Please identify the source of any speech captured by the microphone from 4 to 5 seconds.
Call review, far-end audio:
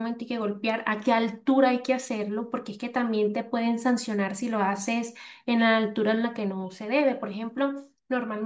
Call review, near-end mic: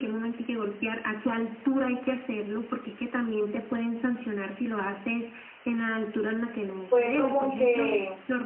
echo only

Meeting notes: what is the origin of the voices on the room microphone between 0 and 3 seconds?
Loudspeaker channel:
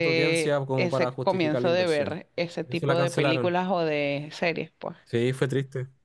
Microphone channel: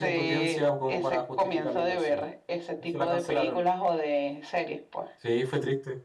echo only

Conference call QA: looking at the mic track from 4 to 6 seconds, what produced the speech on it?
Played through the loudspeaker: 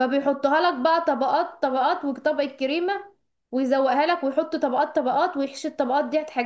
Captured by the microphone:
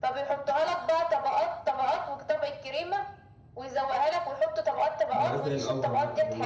both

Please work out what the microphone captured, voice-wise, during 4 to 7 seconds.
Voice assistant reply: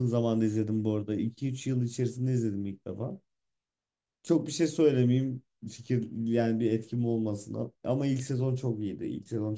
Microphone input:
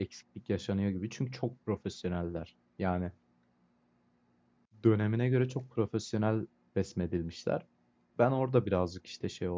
user only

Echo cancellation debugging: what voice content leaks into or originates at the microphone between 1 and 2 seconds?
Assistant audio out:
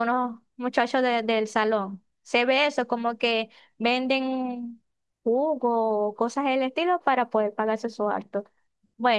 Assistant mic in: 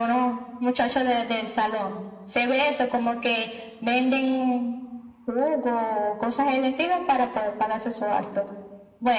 echo only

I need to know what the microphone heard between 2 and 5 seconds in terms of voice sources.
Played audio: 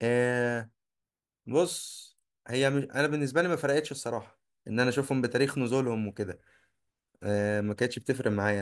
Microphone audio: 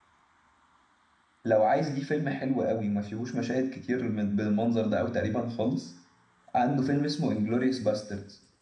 user only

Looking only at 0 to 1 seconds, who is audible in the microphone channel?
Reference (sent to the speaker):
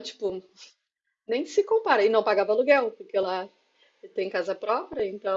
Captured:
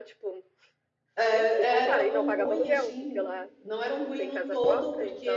echo only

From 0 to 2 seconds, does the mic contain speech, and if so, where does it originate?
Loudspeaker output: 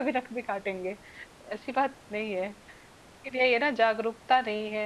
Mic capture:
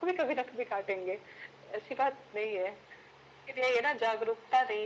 echo only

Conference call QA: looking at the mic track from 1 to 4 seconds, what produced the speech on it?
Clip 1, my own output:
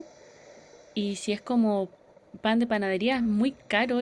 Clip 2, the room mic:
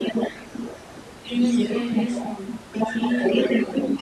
both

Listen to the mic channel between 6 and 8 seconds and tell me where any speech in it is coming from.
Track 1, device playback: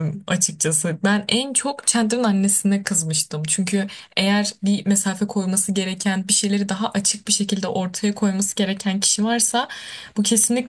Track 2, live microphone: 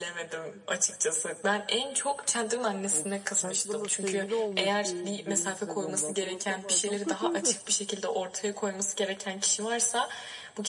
both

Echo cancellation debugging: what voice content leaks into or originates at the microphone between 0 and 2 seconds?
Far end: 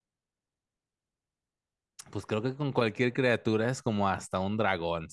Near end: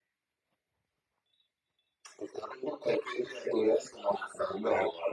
neither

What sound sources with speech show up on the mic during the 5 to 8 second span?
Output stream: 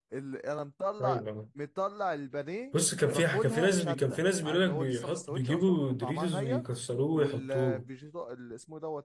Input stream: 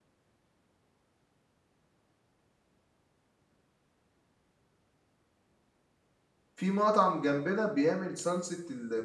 user only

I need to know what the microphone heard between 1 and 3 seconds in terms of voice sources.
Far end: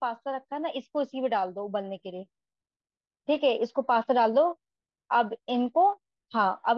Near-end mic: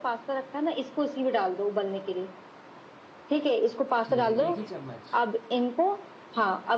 echo only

